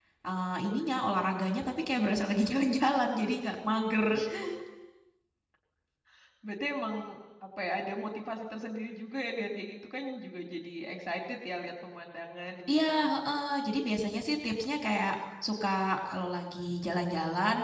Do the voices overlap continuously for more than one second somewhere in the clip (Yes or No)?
No